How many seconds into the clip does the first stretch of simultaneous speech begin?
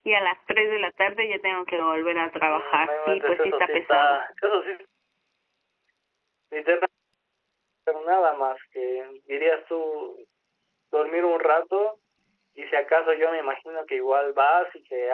2.5 s

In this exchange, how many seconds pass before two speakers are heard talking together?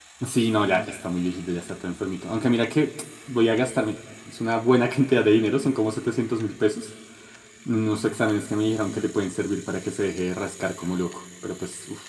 none

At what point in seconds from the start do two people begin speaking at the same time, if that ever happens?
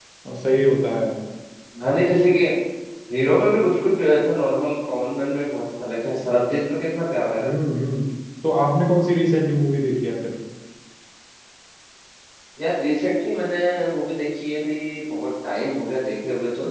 none

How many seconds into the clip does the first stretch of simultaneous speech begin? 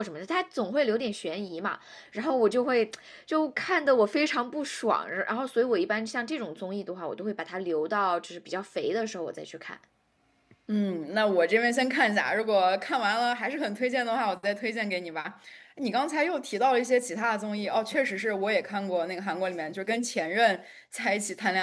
none

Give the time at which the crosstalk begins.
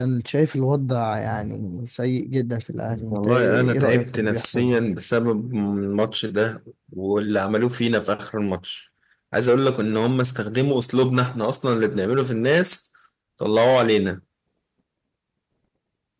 3.1 s

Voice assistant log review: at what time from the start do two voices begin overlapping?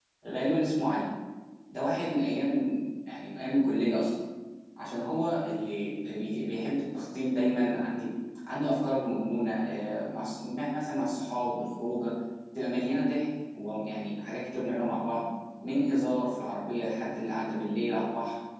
none

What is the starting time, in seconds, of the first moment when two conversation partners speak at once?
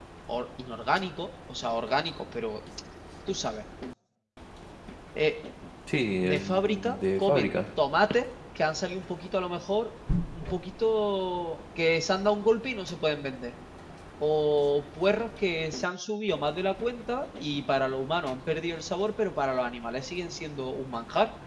6.2 s

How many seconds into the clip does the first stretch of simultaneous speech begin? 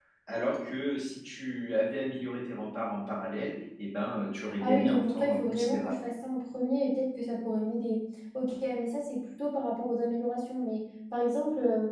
4.6 s

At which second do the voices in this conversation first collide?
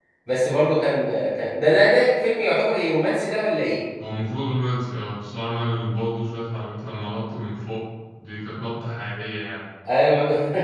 none

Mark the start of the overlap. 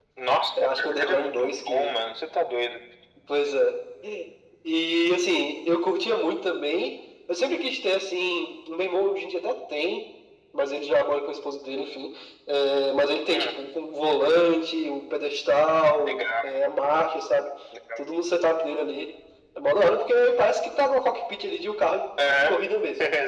0.6 s

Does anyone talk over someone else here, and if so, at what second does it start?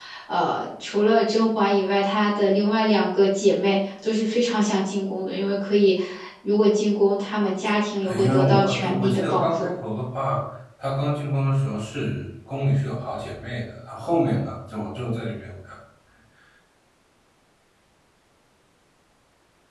8.0 s

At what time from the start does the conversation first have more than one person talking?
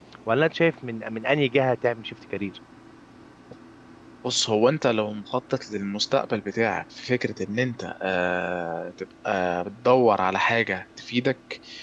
none

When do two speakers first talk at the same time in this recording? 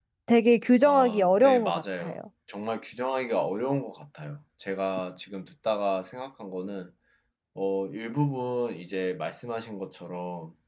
0.8 s

